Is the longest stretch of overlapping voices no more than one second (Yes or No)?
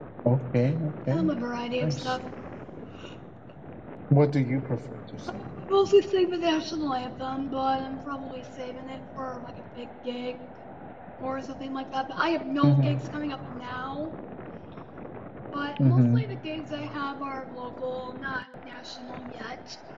Yes